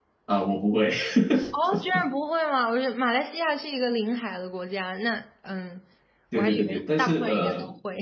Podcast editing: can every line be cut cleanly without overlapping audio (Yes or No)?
No